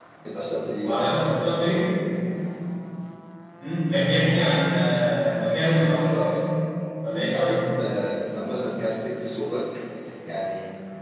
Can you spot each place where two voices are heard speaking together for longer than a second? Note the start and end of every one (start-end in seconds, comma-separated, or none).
none